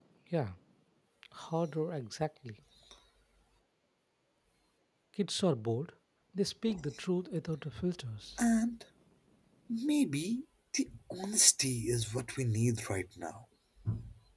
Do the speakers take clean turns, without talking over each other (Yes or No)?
Yes